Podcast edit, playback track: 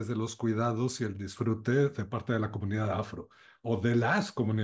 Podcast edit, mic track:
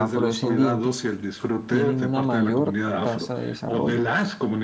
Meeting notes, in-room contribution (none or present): present